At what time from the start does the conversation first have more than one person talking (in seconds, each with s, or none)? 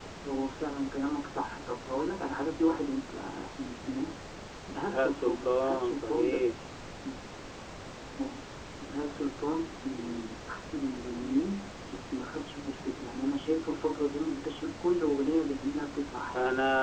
4.8 s